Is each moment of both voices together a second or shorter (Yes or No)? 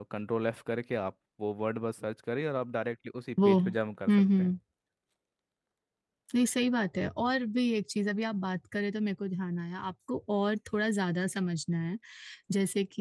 Yes